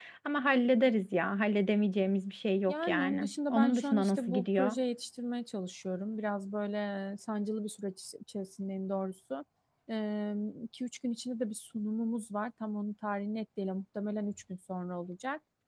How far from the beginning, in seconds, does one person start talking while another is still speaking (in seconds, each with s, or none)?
2.7 s